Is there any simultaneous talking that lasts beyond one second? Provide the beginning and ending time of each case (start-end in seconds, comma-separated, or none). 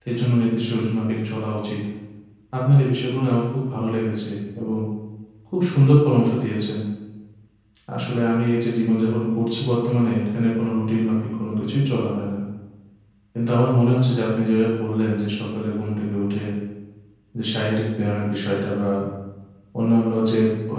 none